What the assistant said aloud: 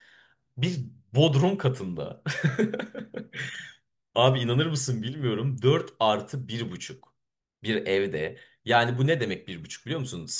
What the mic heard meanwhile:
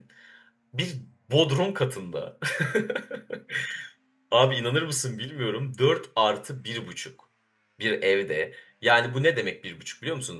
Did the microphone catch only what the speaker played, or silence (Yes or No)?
Yes